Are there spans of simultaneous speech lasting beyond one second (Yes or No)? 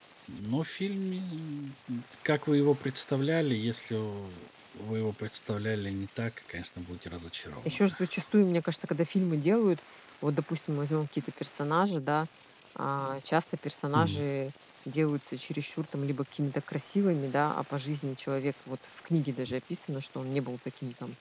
No